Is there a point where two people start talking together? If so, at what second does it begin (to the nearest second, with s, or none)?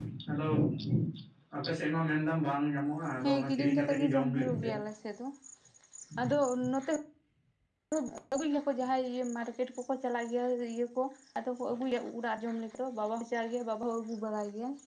3 s